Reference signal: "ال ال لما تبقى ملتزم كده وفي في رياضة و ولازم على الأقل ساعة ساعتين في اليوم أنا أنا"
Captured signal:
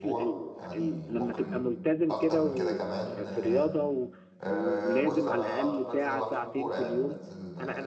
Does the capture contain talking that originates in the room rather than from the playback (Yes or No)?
Yes